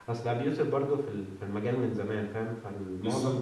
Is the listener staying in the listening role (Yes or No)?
Yes